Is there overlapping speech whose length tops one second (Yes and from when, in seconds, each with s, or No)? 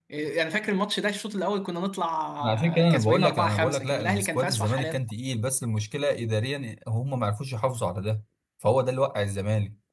Yes, from 2.4 s